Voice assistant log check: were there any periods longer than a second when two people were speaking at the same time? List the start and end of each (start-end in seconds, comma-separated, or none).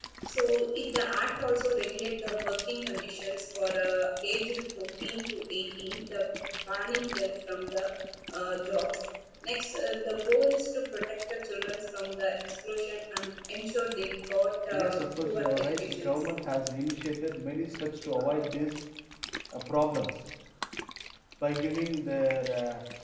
14.7-16.3